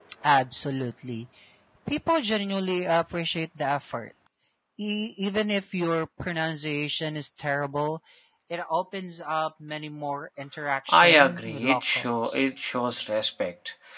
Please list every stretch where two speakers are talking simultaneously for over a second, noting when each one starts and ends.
10.9-12.5

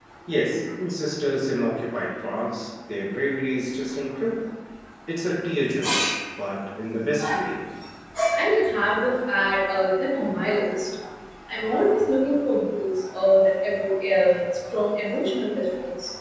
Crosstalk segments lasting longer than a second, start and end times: none

